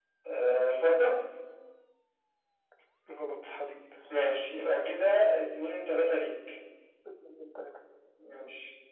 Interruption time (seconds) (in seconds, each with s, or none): none